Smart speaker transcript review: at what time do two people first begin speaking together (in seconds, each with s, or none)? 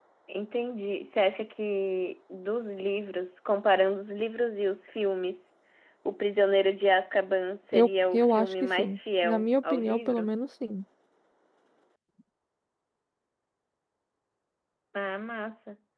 7.7 s